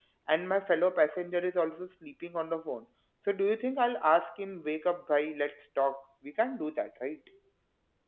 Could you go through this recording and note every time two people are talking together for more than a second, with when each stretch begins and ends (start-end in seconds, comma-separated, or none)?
none